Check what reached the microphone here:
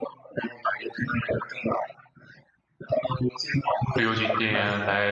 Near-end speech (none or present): present